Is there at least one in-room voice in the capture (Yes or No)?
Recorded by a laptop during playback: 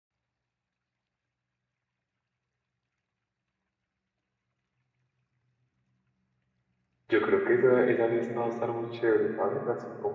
Yes